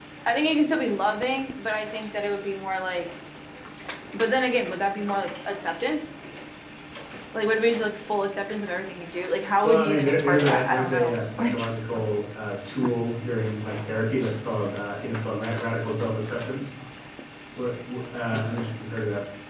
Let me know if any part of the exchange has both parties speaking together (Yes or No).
Yes